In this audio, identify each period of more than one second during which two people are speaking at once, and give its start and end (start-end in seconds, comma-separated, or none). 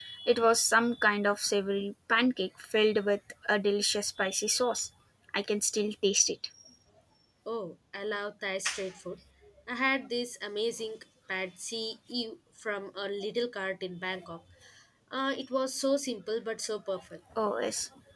none